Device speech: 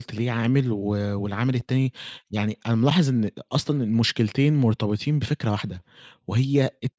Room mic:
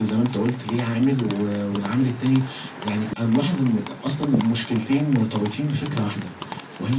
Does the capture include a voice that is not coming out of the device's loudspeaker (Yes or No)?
No